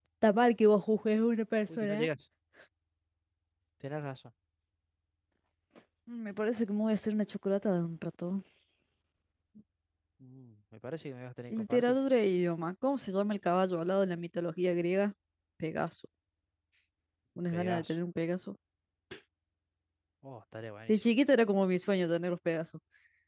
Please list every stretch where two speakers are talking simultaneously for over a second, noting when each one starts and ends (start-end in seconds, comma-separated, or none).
none